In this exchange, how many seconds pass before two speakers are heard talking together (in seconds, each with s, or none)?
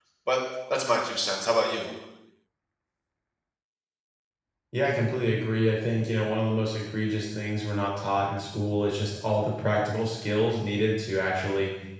none